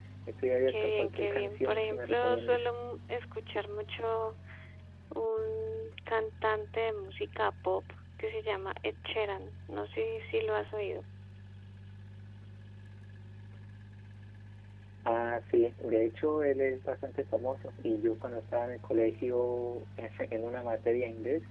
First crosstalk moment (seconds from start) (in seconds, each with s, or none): 0.7 s